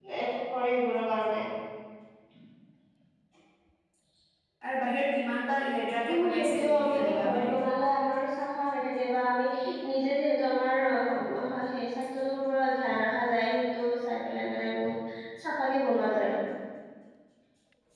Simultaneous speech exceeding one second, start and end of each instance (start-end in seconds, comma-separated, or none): 6.1-7.5